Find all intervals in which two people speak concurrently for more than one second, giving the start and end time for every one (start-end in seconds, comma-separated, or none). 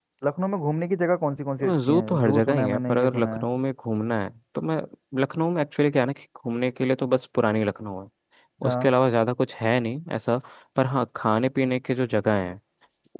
1.9-3.5